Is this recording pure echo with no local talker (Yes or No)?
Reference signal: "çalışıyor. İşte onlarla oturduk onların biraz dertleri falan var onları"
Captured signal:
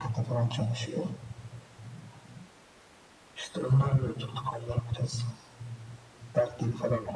Yes